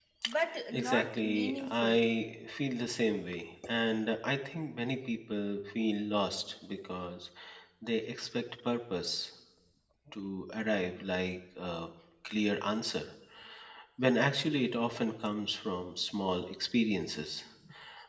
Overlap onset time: 0.7 s

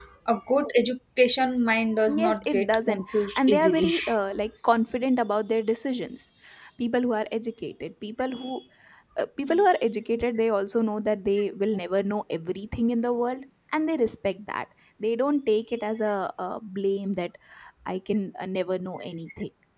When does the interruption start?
2.1 s

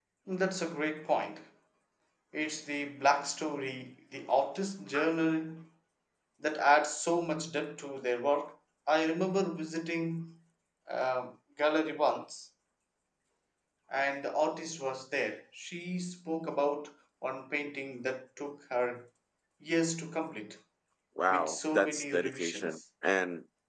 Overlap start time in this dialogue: 21.3 s

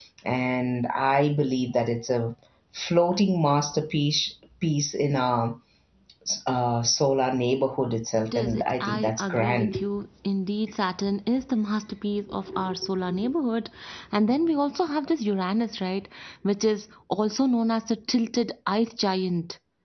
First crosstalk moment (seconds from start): 8.3 s

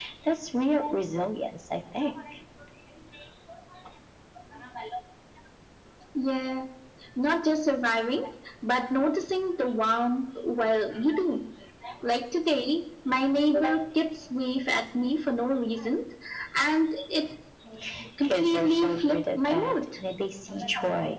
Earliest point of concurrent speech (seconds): 18.2 s

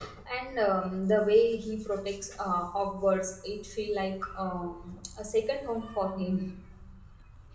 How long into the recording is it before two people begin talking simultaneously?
none

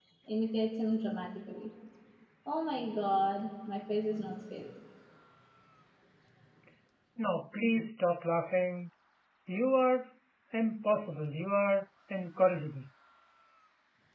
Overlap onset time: none

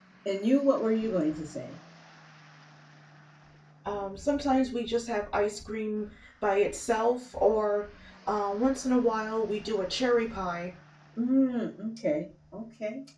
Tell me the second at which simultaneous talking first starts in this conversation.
none

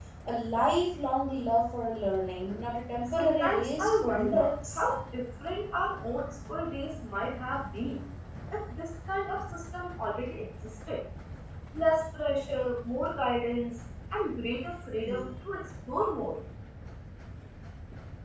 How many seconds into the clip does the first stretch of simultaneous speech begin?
3.1 s

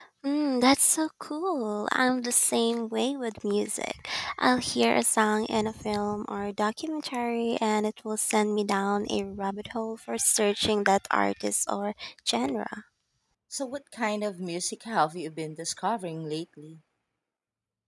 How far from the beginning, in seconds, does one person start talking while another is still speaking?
none

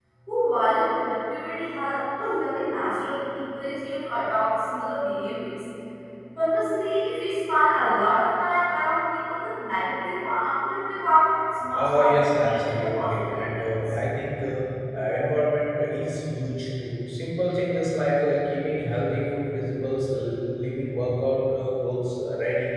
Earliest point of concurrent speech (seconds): 11.6 s

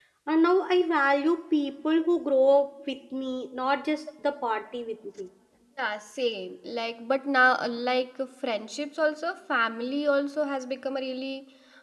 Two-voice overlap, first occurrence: none

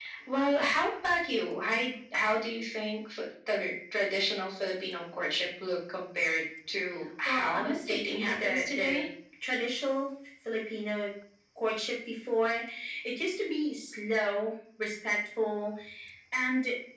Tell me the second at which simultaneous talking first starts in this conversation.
7.2 s

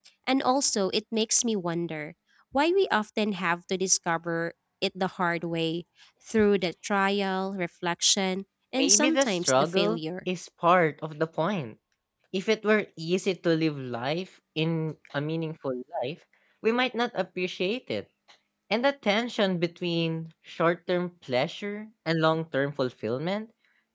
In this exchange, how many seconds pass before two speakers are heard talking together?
8.8 s

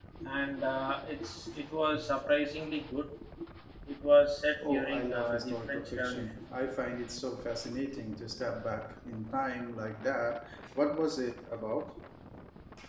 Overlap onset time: 4.6 s

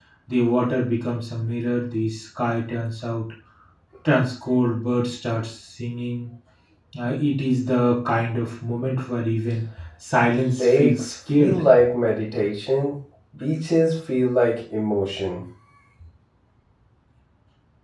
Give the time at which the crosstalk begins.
10.3 s

